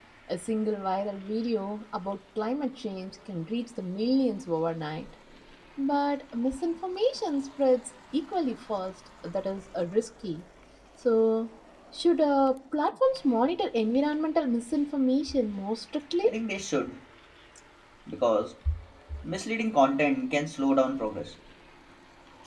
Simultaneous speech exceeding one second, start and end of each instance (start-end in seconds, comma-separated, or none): none